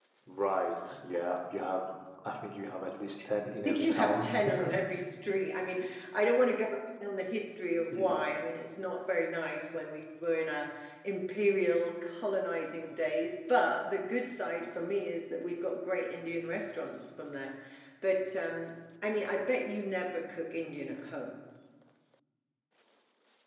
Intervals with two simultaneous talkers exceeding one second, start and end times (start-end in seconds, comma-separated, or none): 3.6-4.8